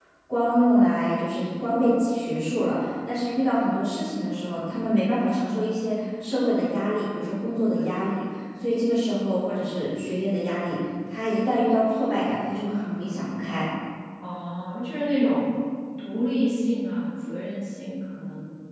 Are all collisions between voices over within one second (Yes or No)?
Yes